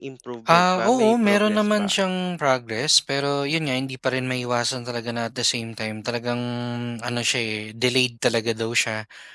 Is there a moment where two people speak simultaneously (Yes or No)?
Yes